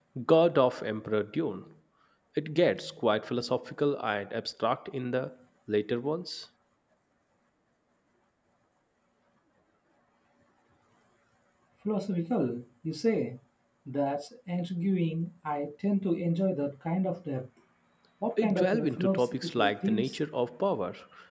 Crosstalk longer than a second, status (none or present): present